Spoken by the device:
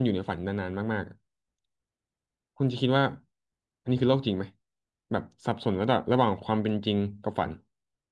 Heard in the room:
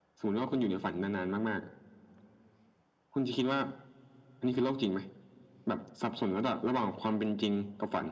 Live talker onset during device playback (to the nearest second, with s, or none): none